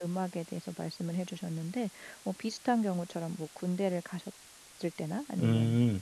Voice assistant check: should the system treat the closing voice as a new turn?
No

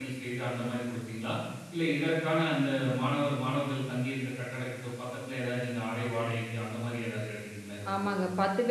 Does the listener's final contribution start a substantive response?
Yes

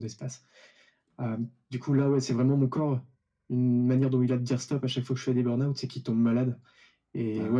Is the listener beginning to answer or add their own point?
No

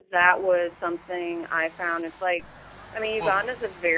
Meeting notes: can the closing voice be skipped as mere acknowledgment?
Yes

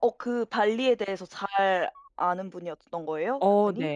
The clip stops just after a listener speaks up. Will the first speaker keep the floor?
No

